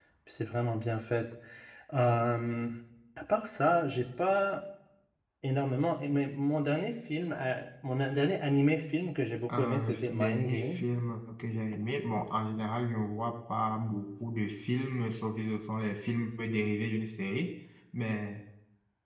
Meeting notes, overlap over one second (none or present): present